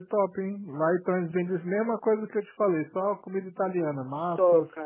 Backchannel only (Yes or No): No